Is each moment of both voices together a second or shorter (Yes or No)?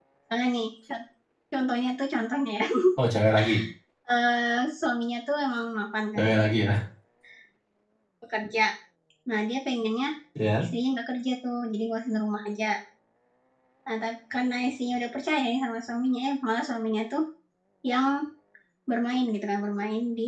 Yes